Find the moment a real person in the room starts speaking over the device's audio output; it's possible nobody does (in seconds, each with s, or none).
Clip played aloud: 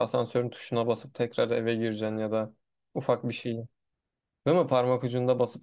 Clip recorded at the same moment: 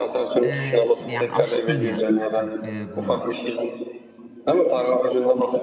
0.4 s